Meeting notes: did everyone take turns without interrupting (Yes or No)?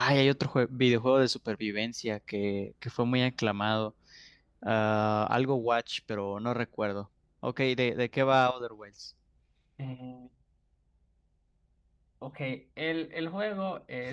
Yes